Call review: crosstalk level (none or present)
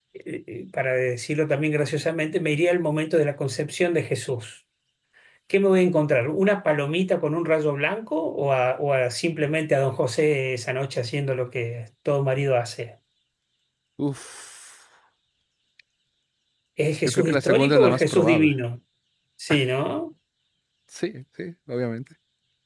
present